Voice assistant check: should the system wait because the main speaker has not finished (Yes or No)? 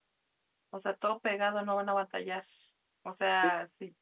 Yes